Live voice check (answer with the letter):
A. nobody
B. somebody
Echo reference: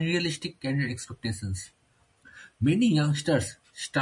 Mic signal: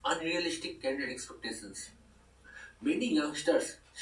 A